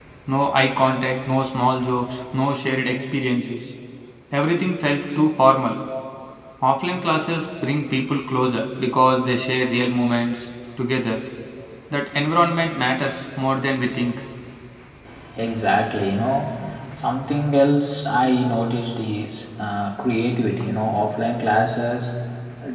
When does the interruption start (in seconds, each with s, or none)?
none